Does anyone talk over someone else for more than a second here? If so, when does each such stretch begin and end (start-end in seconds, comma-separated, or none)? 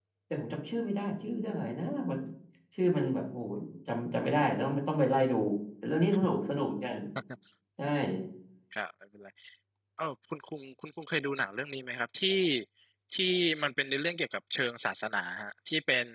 none